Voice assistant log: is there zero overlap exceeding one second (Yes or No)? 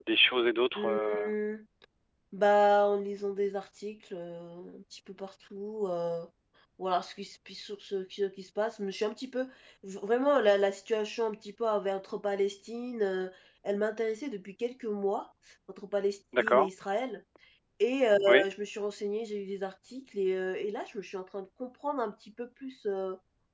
Yes